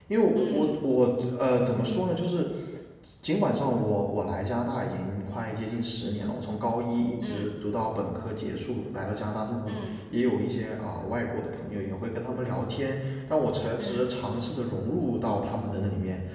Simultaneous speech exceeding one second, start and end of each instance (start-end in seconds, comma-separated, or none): none